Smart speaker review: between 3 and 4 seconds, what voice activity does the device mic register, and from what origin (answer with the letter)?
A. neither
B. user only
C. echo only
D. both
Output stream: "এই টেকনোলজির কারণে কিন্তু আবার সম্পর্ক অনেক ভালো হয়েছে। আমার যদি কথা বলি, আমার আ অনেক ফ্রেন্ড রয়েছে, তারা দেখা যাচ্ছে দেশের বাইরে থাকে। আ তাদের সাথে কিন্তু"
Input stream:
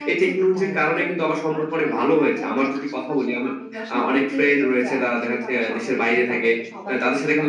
D